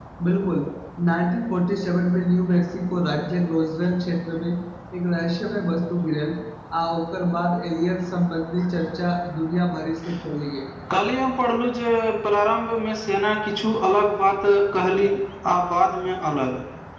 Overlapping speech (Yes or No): No